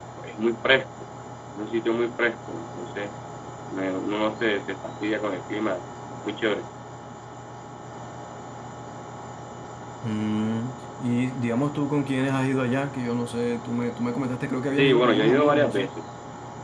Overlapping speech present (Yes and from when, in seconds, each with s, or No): Yes, from 14.7 s